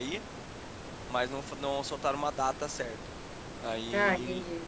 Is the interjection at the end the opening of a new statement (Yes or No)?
No